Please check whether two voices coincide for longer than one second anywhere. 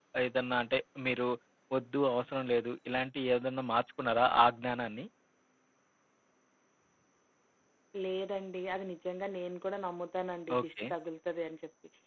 No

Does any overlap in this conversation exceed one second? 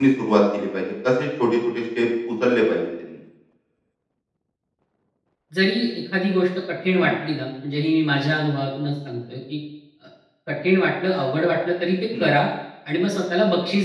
No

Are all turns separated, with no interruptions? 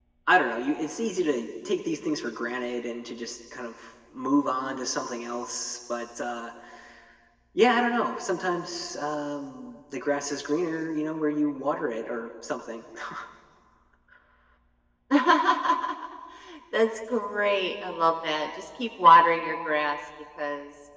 Yes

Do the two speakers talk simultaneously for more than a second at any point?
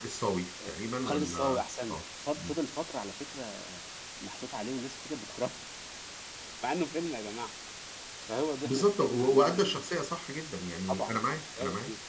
Yes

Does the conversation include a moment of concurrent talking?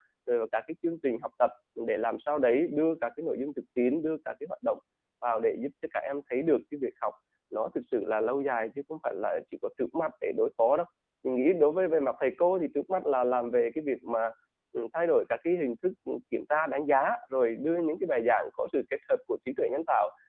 No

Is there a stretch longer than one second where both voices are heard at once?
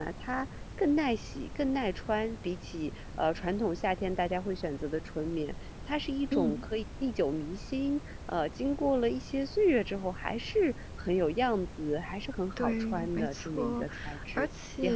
Yes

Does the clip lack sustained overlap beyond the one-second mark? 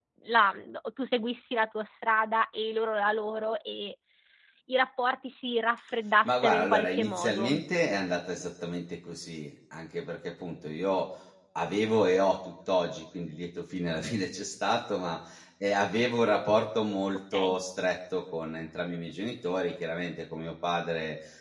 No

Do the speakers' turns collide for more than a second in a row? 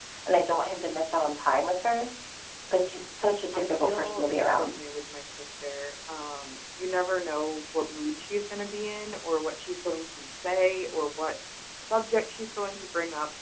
Yes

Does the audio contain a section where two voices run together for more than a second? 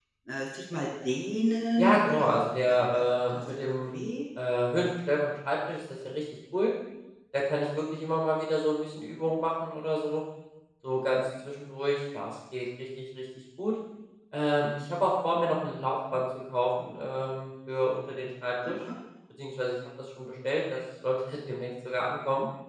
Yes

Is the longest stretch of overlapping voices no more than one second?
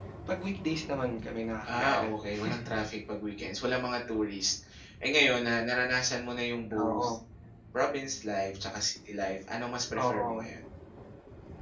Yes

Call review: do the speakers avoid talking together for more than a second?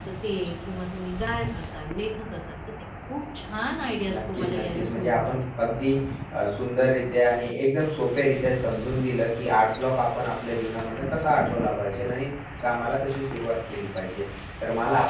No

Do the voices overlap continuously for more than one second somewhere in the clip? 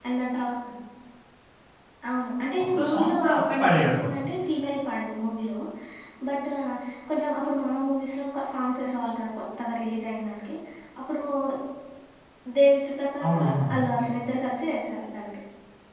Yes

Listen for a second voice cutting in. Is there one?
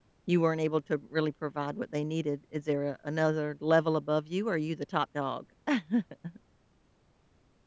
No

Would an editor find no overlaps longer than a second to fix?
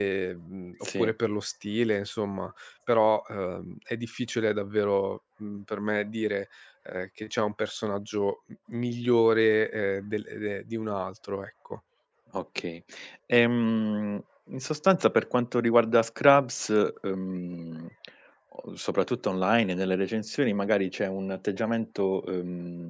Yes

